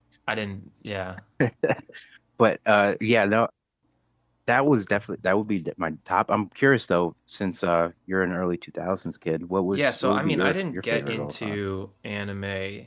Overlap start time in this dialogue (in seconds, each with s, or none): 9.7 s